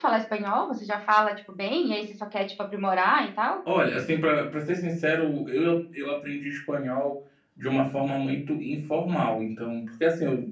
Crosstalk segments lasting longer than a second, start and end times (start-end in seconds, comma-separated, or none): none